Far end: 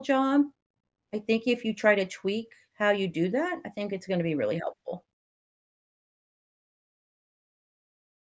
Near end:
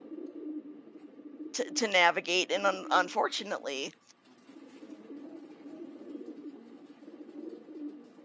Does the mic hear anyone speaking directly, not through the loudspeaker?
Yes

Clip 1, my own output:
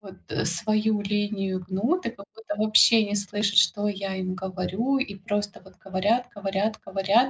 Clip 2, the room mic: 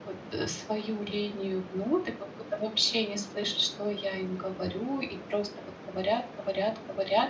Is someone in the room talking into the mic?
No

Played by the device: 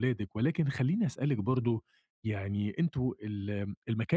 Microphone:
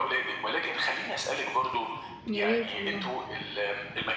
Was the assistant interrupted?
Yes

